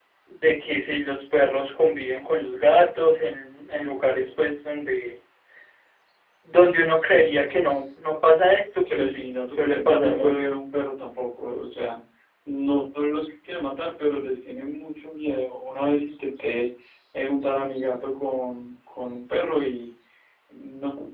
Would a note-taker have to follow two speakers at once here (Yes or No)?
Yes